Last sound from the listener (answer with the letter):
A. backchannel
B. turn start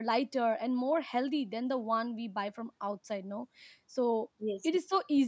A